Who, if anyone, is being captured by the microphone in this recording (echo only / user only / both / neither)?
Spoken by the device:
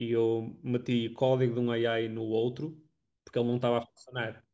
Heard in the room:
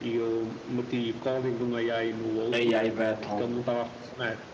both